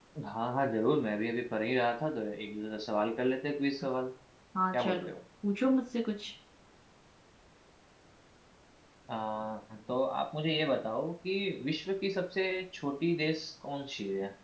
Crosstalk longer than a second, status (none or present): none